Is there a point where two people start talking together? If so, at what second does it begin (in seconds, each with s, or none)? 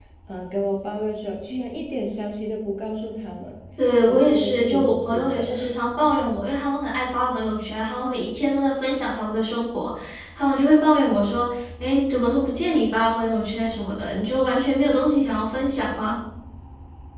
4.0 s